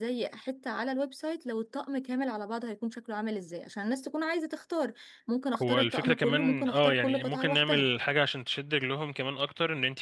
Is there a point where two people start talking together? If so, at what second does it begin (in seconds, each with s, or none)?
5.6 s